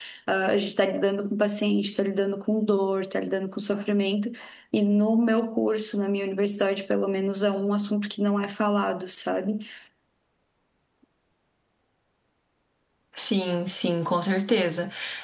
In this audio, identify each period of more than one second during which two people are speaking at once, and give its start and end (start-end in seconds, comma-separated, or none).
none